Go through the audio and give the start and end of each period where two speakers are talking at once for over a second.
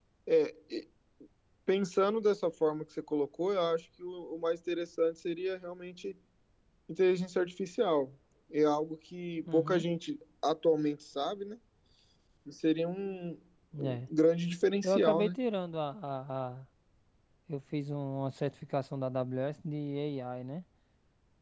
none

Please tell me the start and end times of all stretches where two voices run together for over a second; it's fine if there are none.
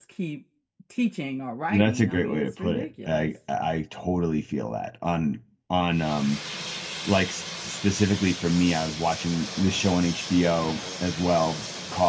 1.7-3.3

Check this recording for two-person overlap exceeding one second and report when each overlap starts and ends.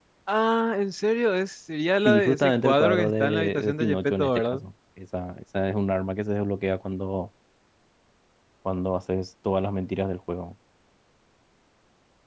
2.0-4.6

